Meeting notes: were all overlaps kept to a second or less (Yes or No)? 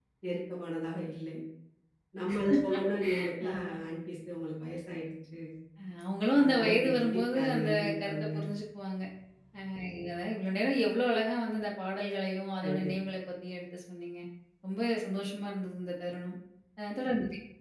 No